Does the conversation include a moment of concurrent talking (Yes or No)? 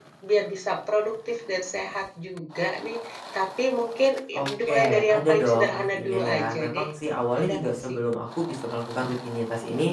Yes